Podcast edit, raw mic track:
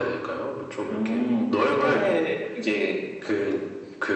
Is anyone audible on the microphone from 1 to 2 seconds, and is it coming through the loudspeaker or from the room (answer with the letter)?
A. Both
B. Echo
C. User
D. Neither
B